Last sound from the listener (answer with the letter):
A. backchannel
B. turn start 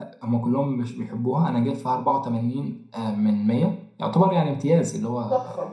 A